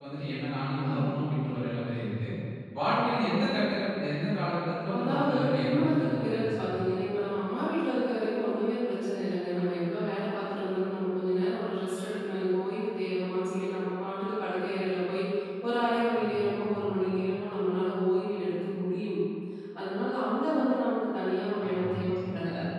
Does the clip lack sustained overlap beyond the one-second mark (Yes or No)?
No